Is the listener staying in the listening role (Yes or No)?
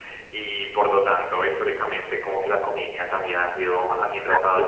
Yes